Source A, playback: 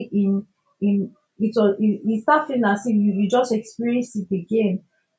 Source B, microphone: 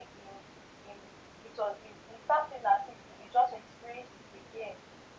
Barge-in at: none

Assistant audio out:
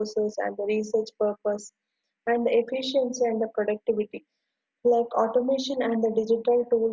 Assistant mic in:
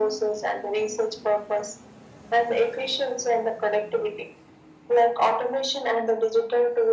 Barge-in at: none

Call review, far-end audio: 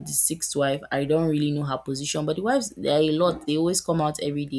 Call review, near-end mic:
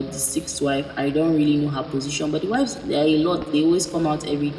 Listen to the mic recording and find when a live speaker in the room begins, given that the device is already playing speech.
none

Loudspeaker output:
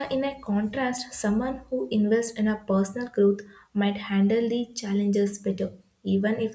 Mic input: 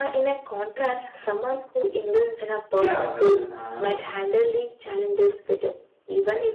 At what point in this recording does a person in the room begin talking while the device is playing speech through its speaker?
2.7 s

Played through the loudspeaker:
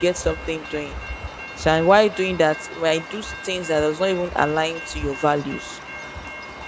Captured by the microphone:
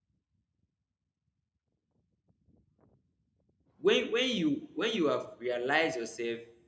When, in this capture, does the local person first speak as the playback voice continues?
3.8 s

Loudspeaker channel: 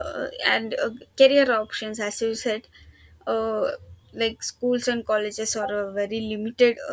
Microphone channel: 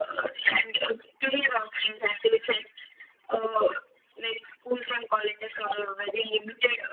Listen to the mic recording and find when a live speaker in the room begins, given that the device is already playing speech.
none

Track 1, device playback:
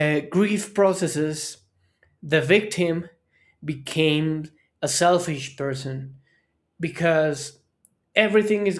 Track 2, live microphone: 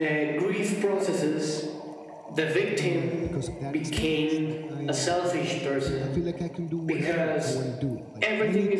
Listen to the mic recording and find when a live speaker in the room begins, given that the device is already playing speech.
2.8 s

